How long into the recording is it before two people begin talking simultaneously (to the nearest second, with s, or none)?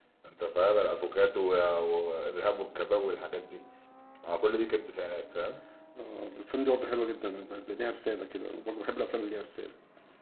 none